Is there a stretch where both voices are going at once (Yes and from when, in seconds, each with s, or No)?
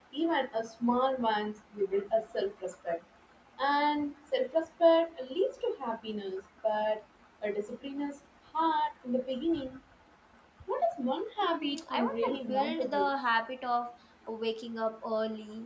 Yes, from 11.4 s